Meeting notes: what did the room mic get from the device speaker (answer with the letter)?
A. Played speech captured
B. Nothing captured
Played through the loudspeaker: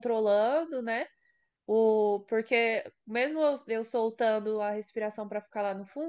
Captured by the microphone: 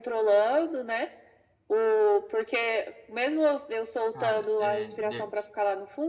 A